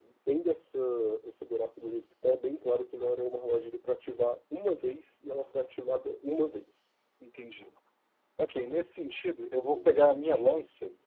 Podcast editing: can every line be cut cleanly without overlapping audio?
Yes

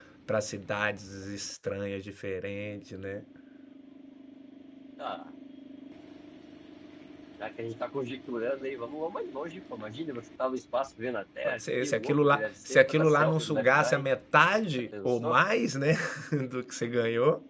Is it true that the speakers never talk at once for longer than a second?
No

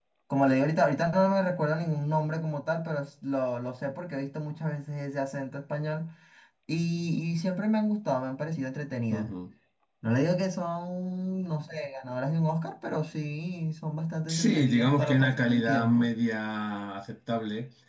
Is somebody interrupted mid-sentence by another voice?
Yes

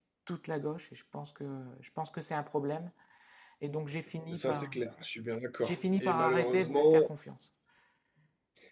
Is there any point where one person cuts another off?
Yes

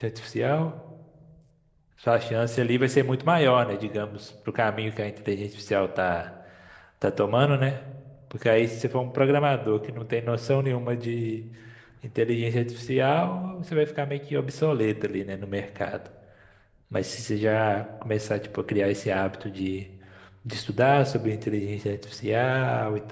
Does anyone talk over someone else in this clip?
No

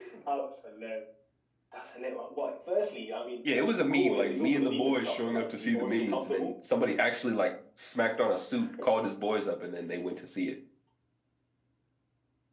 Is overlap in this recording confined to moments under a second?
No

